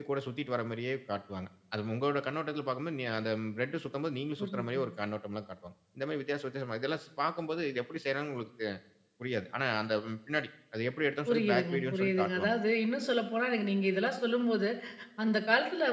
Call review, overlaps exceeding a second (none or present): present